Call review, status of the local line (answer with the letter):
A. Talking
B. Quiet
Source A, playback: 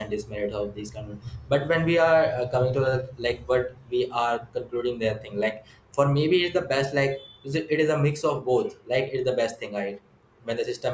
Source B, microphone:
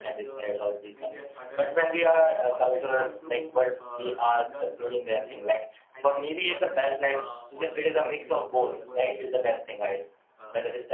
A